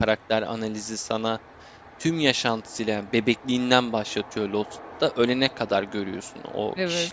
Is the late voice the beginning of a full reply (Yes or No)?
No